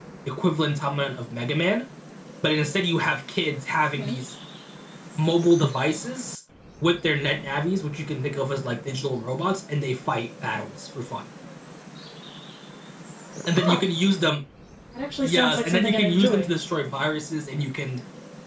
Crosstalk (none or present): present